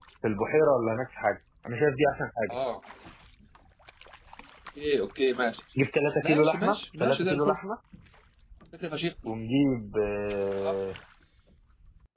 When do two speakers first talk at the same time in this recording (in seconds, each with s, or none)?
6.2 s